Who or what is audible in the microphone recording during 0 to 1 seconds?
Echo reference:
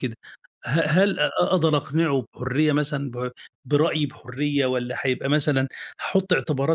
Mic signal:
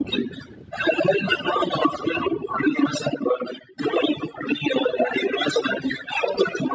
echo only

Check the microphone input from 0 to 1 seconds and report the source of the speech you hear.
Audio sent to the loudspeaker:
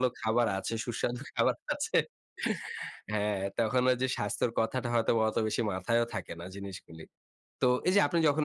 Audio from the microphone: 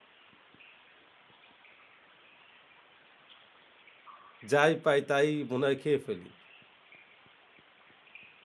neither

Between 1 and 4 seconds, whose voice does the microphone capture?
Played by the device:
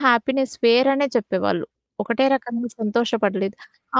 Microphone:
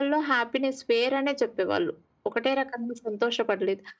echo only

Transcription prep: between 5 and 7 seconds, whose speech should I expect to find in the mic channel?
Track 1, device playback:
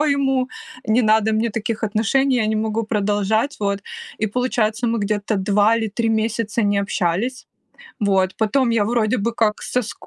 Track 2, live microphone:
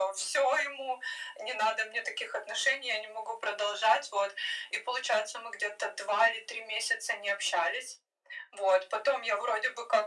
echo only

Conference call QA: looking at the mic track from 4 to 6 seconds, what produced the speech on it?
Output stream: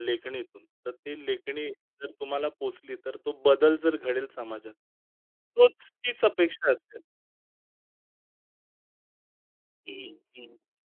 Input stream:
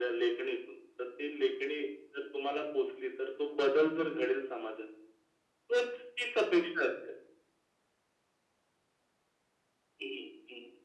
echo only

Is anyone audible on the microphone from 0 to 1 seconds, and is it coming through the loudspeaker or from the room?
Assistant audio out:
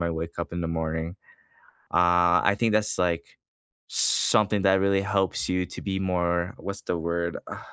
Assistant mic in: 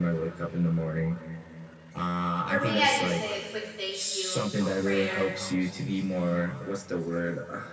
echo only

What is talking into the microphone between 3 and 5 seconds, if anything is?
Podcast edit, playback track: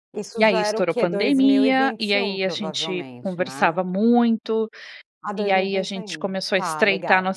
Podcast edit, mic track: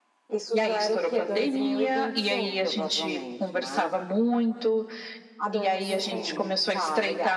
echo only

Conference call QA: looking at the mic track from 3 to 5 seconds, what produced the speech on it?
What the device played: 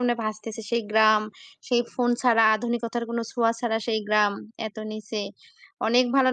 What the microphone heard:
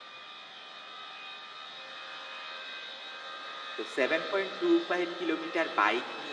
user only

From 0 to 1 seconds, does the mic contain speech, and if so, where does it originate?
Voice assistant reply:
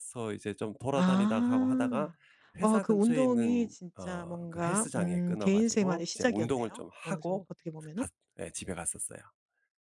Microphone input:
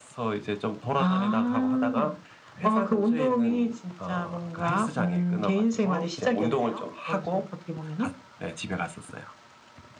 echo only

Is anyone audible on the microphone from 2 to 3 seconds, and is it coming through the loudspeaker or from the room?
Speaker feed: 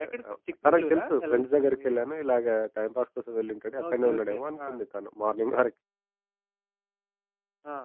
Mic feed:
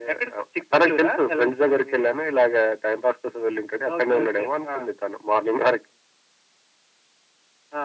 echo only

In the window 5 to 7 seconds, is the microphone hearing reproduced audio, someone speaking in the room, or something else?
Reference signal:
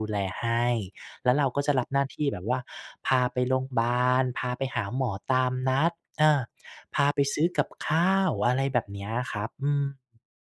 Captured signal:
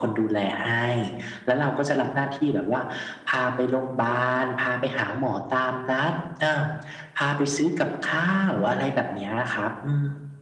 echo only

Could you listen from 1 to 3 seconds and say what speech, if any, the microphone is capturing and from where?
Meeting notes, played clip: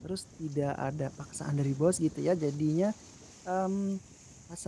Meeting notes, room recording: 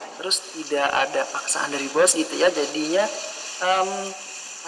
echo only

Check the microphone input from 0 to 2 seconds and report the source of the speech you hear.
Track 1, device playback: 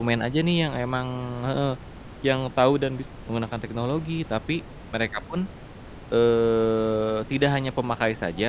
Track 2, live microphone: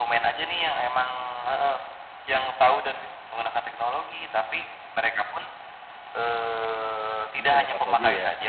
echo only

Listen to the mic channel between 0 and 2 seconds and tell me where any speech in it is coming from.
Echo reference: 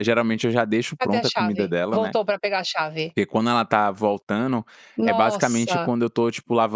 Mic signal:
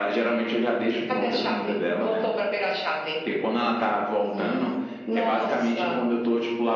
echo only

